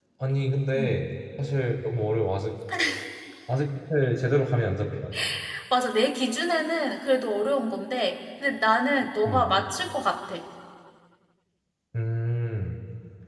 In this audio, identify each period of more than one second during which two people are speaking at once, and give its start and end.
none

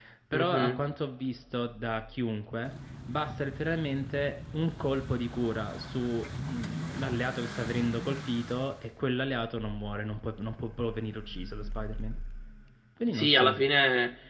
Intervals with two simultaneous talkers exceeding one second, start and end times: none

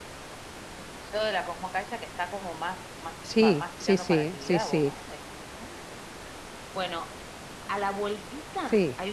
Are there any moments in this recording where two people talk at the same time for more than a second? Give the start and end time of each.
3.4-4.9

